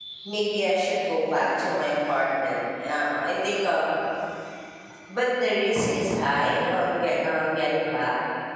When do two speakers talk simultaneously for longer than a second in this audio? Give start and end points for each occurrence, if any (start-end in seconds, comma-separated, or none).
none